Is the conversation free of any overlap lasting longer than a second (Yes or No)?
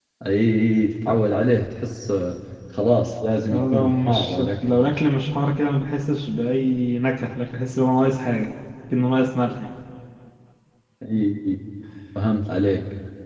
No